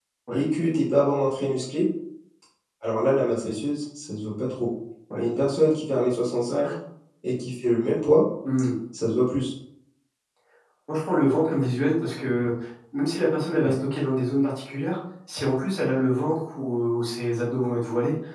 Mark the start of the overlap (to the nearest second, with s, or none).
none